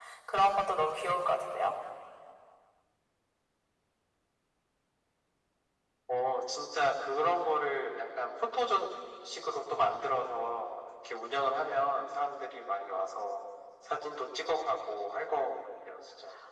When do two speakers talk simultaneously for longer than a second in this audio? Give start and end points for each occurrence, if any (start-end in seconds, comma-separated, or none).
none